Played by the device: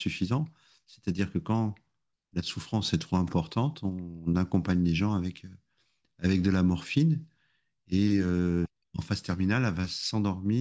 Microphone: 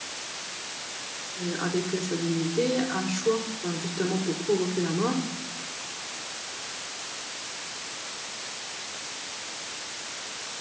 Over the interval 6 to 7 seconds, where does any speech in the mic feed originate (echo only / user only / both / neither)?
neither